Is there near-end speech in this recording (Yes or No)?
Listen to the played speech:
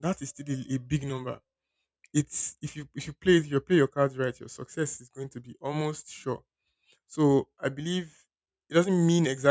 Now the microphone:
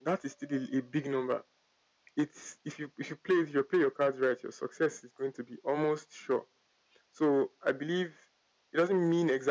No